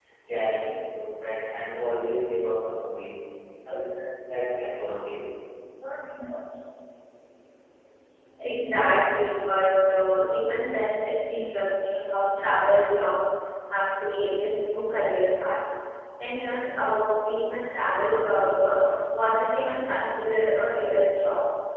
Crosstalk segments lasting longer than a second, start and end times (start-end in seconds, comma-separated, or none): none